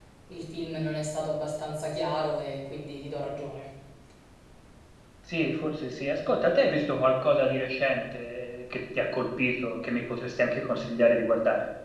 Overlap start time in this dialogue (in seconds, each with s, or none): none